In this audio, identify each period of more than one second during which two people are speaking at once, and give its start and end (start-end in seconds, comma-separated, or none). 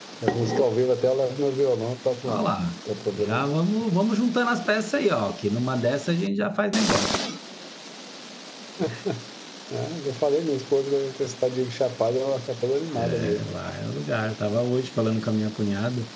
none